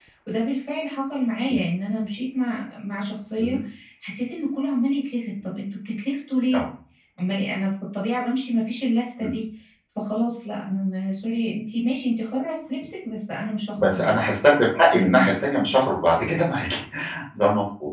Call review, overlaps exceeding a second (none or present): none